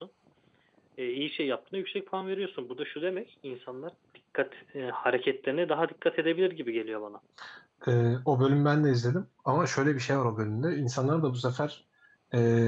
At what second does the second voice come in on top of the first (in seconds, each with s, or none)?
none